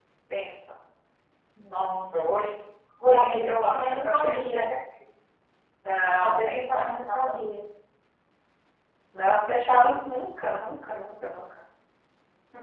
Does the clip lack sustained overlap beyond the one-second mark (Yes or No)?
No